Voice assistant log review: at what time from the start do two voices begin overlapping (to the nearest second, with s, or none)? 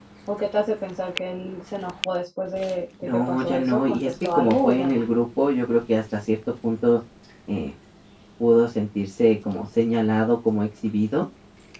3 s